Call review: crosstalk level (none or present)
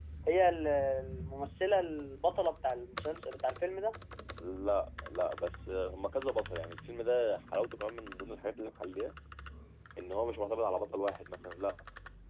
none